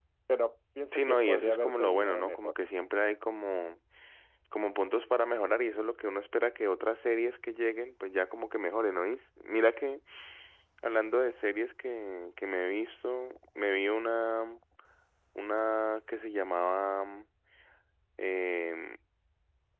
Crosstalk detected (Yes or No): Yes